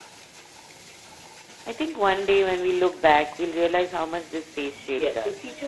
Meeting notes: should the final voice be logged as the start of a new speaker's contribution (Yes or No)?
Yes